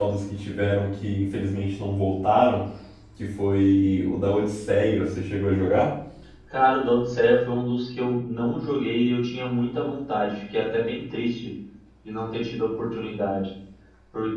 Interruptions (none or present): none